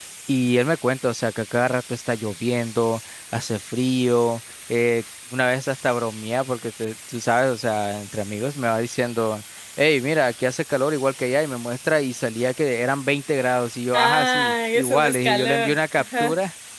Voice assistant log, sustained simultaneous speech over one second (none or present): present